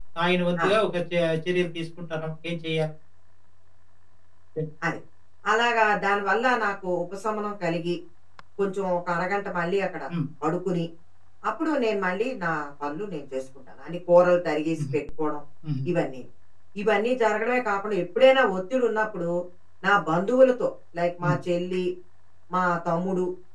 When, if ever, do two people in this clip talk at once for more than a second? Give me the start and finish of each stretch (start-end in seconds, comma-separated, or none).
none